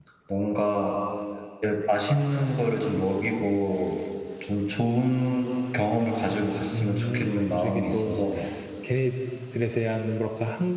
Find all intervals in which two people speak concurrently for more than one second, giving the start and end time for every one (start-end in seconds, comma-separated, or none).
6.7-8.2